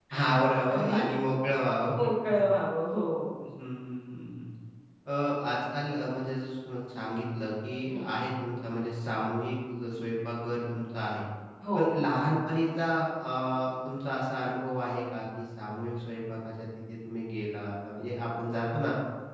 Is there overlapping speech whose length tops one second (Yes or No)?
No